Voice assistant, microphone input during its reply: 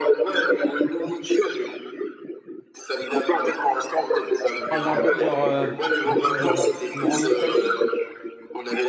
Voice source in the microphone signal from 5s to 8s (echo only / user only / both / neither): both